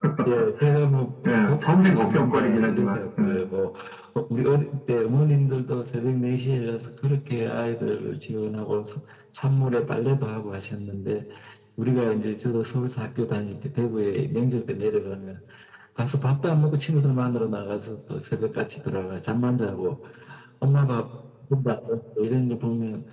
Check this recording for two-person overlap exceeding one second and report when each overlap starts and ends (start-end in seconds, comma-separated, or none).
1.3-3.4